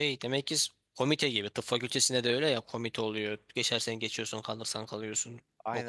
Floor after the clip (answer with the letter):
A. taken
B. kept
A